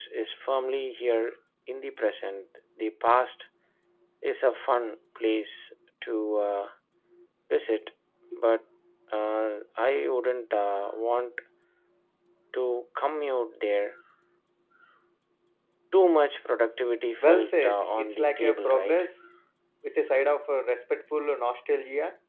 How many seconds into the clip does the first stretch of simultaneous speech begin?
17.2 s

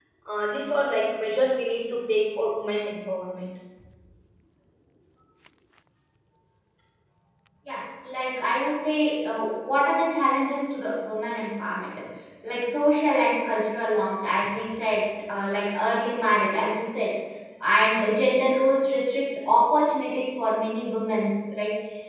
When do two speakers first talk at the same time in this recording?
none

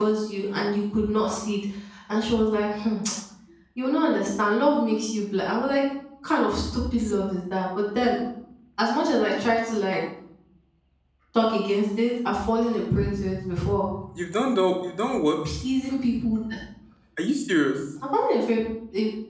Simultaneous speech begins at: none

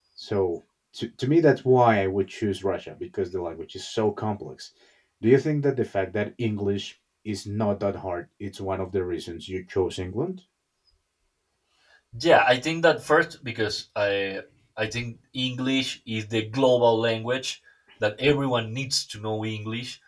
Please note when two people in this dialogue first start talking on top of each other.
none

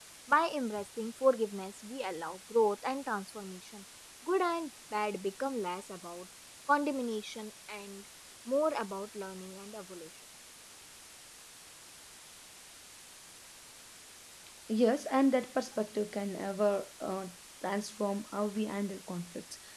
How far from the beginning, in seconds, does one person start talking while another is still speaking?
none

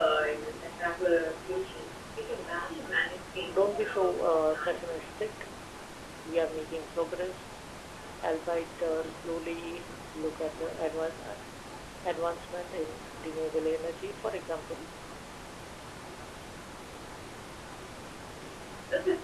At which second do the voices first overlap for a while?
3.5 s

